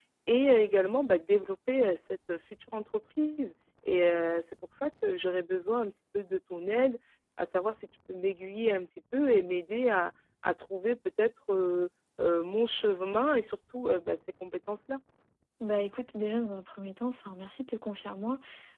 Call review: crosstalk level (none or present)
none